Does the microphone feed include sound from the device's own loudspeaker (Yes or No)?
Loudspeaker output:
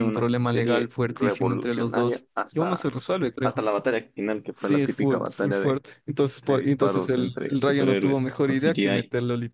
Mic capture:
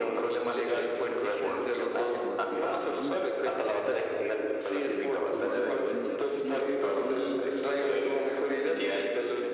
Yes